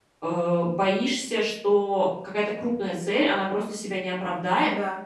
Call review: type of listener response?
listening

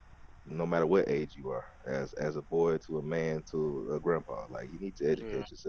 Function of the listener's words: taking over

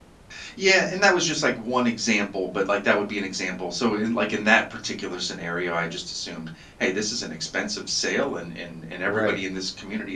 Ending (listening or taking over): listening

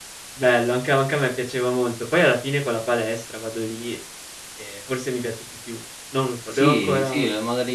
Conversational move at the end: taking over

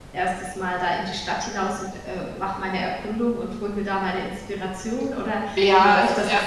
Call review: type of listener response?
taking over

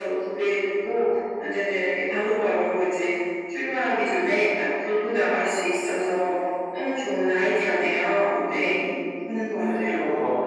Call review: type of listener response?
taking over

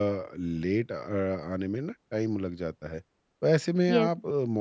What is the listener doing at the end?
listening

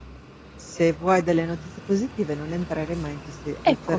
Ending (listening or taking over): listening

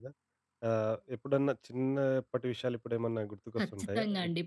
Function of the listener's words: taking over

